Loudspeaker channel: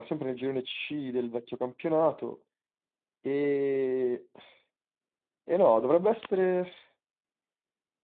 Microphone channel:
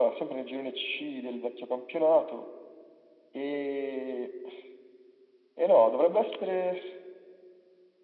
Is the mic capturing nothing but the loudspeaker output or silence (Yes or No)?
Yes